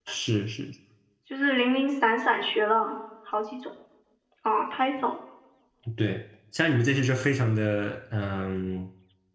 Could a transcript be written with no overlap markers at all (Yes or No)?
Yes